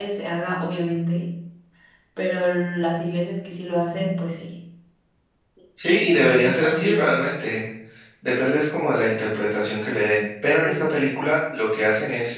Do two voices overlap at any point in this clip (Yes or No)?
Yes